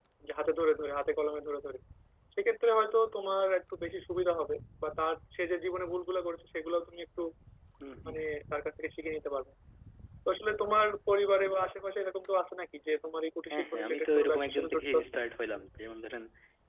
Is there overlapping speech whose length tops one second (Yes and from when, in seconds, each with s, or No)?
Yes, from 13.5 s